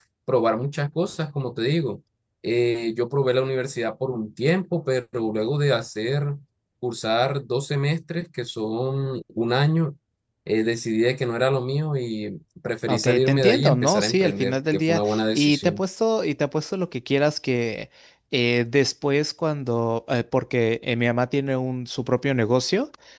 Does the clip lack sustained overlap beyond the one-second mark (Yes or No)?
No